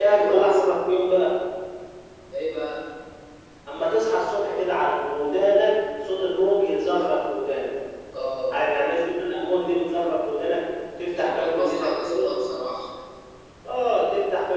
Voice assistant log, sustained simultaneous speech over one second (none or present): present